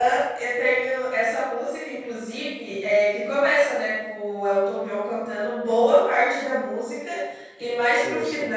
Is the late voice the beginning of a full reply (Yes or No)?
No